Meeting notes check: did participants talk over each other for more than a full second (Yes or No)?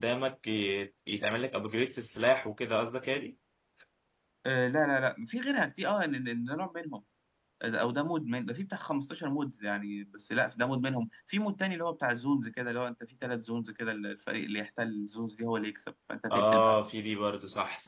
No